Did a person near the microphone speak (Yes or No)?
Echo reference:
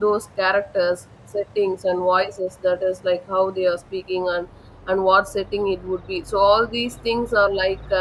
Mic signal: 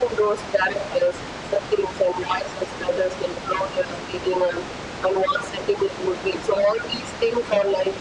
No